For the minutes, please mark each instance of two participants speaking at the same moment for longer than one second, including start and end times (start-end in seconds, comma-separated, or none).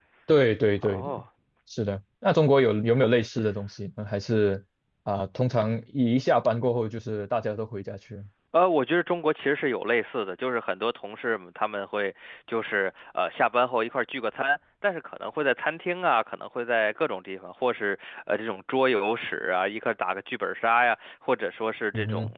none